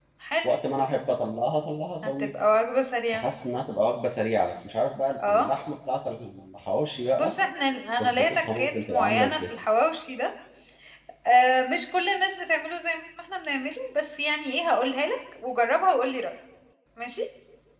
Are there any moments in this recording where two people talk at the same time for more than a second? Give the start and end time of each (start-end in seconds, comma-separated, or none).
8.0-9.4